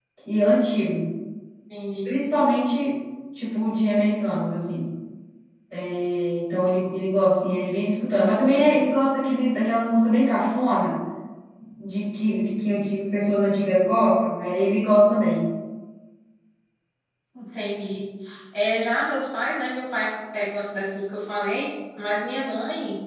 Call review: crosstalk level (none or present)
none